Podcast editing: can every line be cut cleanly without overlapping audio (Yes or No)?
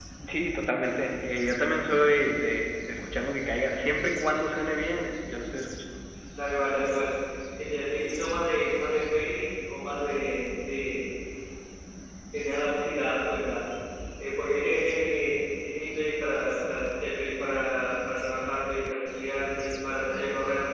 Yes